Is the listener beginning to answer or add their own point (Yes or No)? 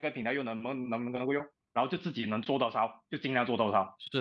Yes